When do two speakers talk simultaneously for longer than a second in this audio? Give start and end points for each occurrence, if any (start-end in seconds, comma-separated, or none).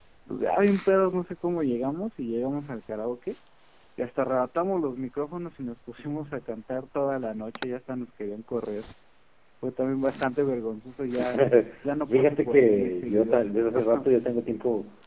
12.1-13.4